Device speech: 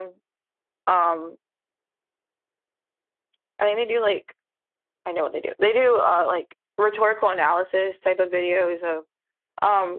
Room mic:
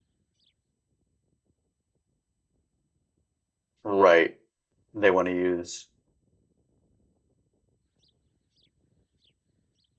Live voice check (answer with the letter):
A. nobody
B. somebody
B